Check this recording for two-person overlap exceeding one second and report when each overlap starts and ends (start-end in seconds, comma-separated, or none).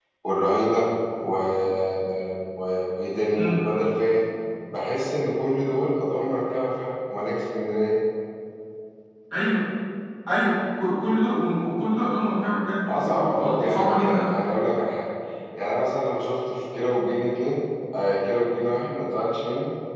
12.9-14.4